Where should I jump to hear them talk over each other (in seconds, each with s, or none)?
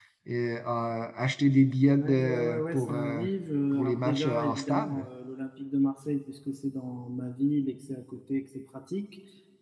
1.9 s